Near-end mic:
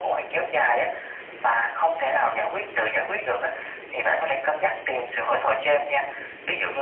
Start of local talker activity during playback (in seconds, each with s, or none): none